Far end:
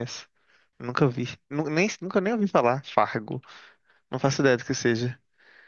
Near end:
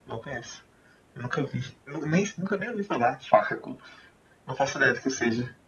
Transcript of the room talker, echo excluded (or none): none